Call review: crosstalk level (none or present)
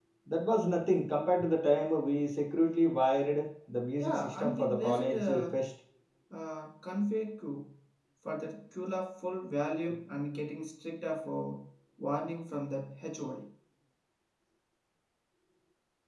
present